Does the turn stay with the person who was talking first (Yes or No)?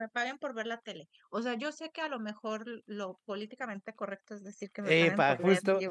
No